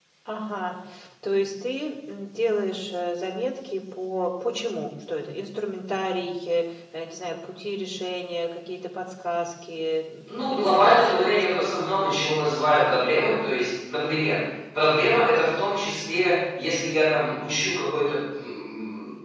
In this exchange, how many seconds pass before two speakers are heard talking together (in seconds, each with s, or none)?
10.3 s